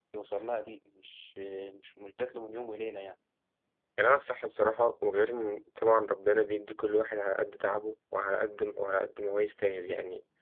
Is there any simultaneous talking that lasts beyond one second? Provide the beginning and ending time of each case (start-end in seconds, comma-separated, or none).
none